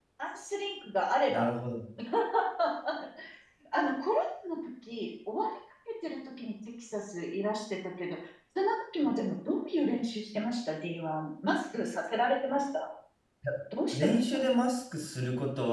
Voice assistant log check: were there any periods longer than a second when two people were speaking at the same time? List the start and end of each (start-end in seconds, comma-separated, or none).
none